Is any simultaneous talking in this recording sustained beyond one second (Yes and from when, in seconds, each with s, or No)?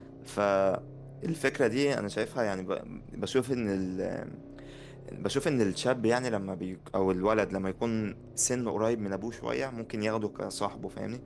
No